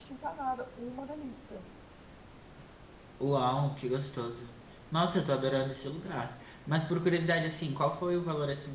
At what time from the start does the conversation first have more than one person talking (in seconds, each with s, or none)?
none